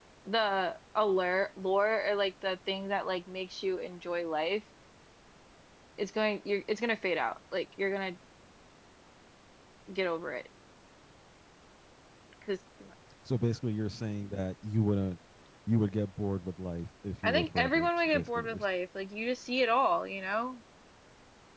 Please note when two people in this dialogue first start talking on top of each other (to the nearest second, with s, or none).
17 s